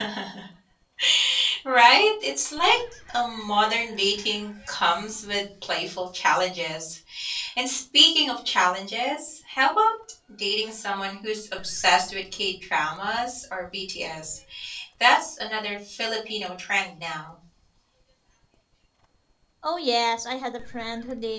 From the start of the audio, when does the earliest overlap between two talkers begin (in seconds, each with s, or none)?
none